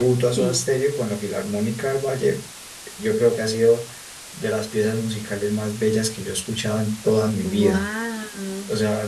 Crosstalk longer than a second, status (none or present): none